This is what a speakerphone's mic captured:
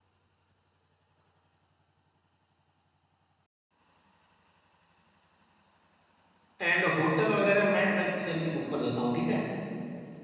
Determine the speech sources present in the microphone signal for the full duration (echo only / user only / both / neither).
user only